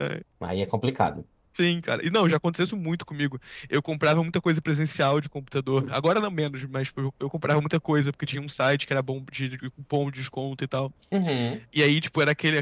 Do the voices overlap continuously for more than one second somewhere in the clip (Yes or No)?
No